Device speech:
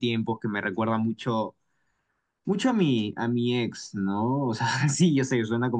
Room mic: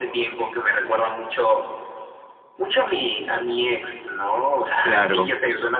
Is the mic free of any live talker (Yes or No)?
No